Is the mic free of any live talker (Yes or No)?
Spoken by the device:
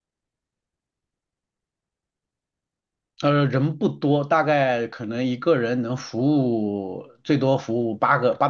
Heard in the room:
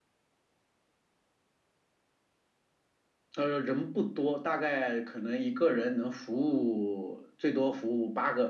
Yes